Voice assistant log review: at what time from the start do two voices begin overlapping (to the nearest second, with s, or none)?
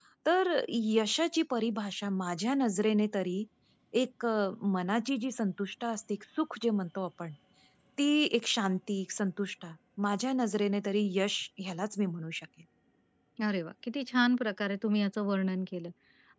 none